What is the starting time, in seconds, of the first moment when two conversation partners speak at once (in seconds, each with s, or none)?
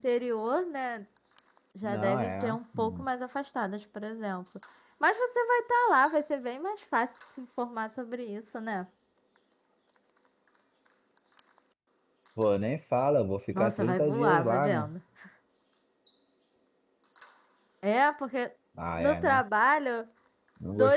1.8 s